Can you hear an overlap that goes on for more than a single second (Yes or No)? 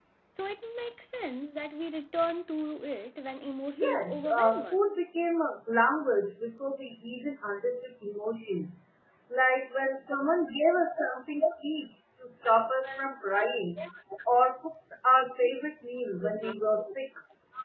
Yes